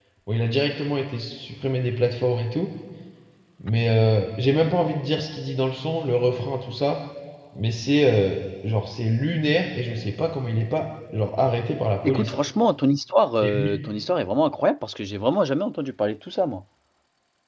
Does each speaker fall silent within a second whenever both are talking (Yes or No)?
Yes